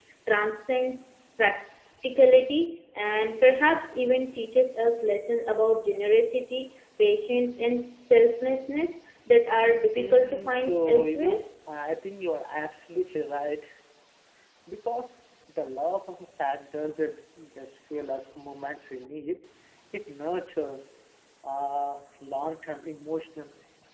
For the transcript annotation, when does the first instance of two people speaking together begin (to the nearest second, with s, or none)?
10 s